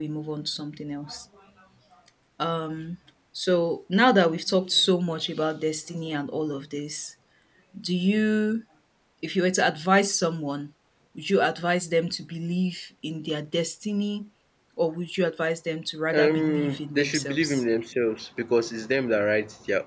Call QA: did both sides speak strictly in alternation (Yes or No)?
No